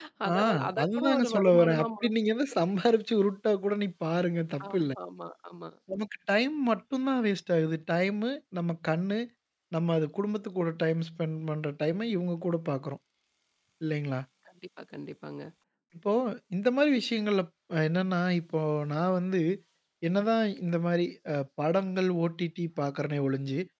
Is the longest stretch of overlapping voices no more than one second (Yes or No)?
No